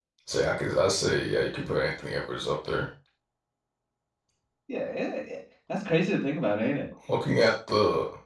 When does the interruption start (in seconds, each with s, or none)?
none